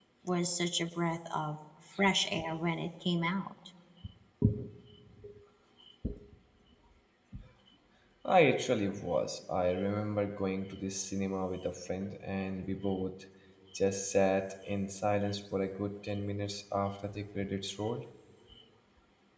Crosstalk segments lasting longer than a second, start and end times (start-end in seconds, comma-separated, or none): none